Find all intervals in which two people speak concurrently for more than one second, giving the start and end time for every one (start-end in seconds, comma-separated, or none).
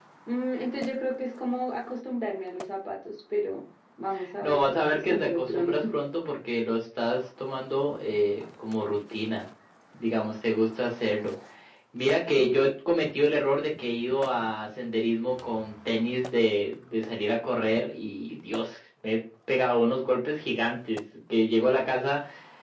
4.4-6.0